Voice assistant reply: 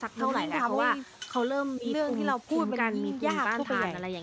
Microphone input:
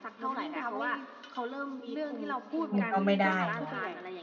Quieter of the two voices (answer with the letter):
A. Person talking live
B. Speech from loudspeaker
B